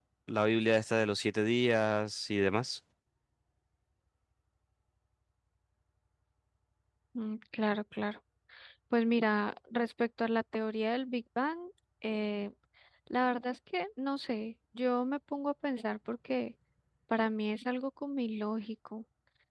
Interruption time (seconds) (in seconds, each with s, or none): none